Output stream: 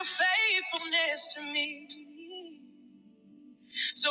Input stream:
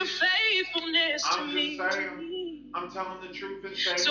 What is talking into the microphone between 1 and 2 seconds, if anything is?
both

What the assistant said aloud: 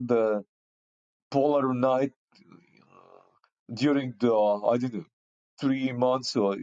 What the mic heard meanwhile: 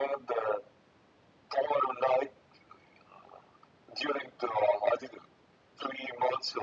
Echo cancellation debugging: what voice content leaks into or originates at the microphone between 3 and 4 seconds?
echo only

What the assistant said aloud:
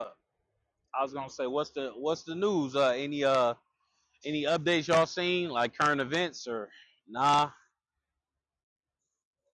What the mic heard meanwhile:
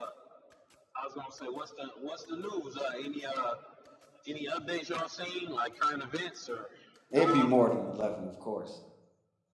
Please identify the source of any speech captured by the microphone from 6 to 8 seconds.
both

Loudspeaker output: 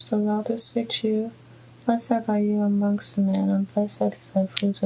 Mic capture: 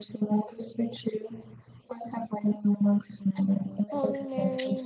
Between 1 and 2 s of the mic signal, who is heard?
echo only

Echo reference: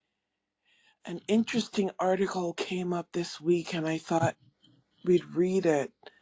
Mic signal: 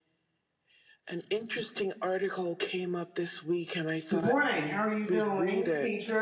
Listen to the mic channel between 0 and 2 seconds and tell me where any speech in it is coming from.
echo only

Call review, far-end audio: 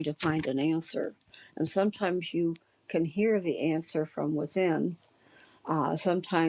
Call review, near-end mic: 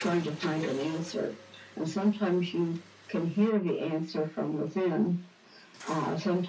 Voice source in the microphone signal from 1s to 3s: echo only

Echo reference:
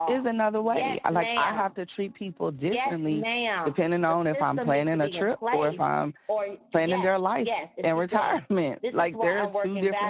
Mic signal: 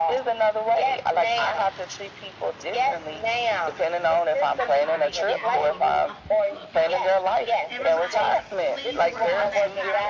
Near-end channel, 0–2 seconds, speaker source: echo only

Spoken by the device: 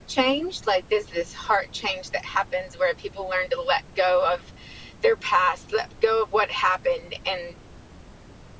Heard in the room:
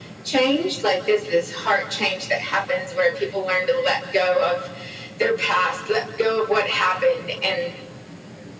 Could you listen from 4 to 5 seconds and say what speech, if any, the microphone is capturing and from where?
echo only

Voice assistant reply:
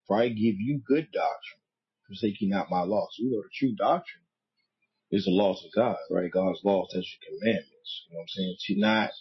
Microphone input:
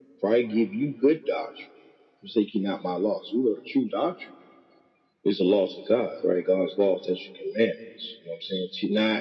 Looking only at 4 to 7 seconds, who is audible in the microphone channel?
echo only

